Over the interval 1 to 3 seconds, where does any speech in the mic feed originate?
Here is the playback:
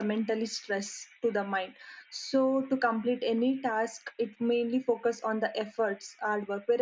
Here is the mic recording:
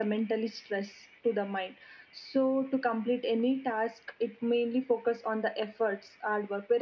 echo only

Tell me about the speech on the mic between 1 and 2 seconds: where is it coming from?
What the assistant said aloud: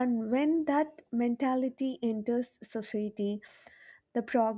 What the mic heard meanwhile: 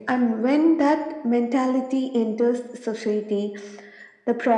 echo only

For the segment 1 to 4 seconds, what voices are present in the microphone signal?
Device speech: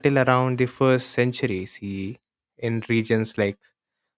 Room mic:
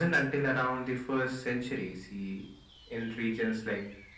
echo only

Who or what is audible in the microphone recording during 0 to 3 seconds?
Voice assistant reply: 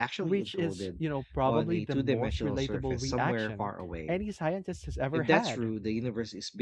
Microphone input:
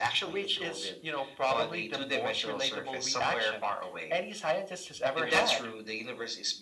echo only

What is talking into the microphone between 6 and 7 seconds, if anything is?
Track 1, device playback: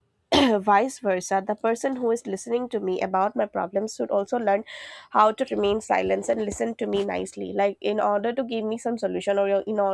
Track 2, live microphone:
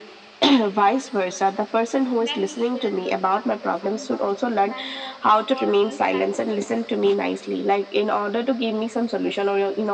both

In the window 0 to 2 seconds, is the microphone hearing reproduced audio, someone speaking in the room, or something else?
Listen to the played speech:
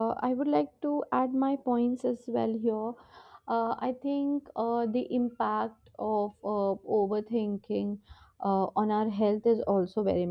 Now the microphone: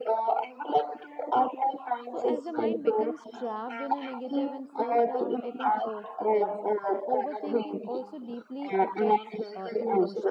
echo only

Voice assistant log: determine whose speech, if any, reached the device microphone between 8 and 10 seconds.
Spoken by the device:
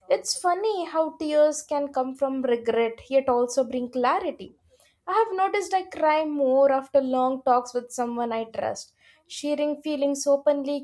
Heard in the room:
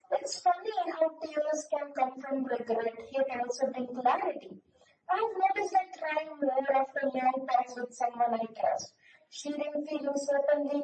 echo only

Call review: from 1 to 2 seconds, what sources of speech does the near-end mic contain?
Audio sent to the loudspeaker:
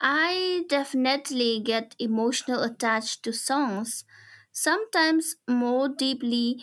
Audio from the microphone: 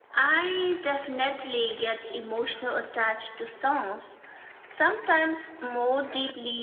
echo only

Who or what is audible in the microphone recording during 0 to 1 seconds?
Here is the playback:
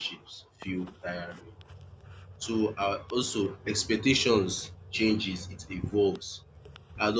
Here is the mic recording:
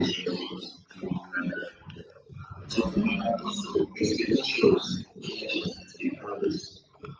echo only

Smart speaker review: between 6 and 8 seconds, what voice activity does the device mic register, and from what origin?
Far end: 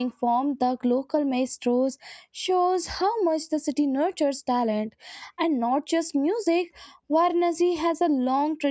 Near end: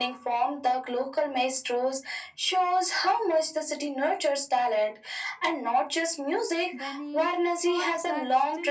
both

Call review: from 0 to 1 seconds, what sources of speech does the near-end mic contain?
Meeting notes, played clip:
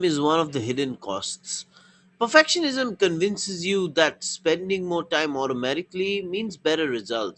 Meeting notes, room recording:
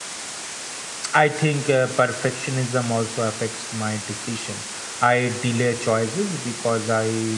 neither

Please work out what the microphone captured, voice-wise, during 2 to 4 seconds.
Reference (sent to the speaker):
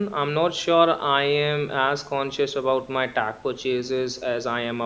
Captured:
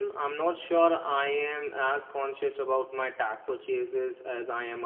echo only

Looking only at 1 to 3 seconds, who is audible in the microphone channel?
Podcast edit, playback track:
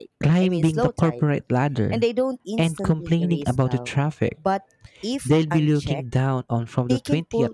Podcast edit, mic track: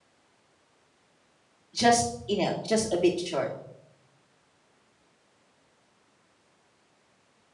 user only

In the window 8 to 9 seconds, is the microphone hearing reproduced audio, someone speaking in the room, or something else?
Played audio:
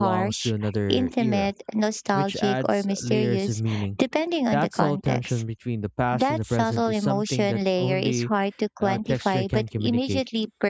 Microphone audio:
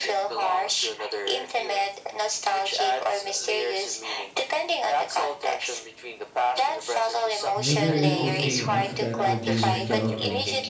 both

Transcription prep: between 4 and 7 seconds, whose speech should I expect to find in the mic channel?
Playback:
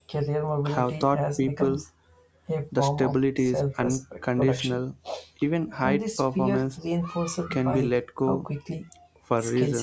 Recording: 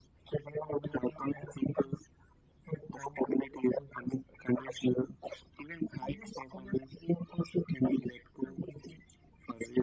echo only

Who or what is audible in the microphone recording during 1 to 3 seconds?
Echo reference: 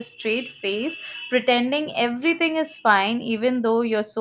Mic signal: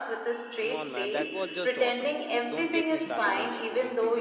both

